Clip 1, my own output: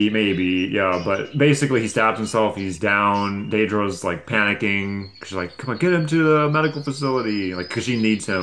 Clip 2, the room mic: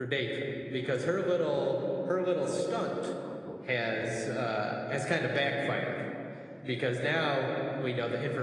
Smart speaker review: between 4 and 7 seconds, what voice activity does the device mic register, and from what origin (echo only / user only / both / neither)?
user only